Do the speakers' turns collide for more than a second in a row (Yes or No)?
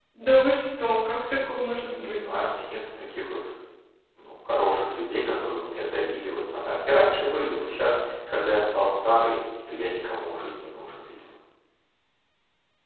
No